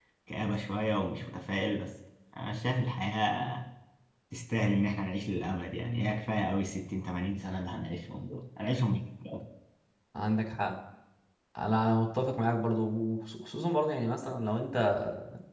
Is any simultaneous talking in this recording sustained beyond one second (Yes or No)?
No